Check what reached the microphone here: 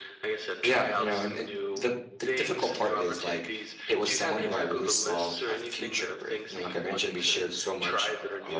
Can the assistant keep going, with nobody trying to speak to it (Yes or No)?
No